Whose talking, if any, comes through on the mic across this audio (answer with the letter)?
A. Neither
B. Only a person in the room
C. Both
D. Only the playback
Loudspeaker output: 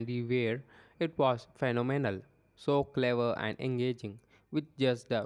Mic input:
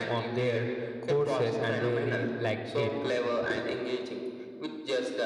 C